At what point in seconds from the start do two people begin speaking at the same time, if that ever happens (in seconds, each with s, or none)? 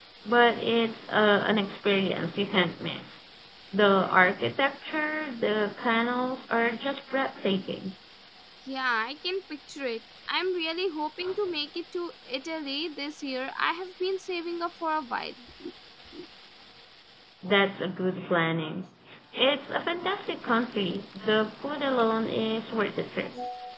none